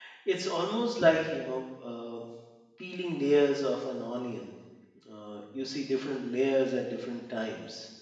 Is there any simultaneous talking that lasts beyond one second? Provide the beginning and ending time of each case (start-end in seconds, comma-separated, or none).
none